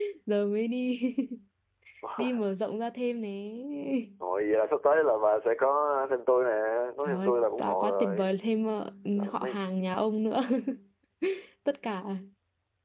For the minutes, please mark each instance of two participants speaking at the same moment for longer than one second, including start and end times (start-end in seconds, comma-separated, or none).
7.0-8.4